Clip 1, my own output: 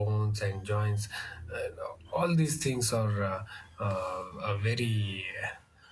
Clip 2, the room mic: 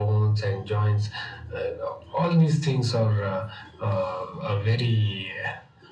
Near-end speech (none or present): none